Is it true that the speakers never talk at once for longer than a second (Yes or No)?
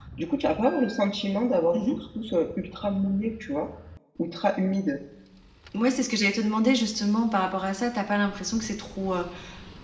Yes